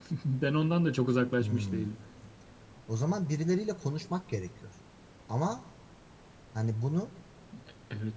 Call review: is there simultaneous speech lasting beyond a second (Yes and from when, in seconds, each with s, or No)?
No